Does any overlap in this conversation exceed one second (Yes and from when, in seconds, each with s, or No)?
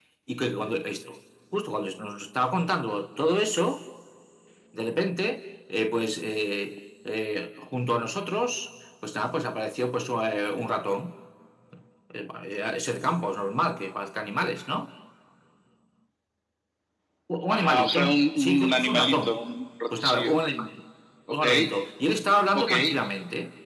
Yes, from 17.5 s